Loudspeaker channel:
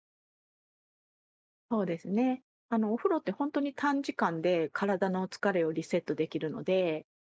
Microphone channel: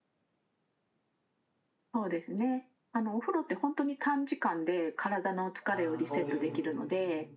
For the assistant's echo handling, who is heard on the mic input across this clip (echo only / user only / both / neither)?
both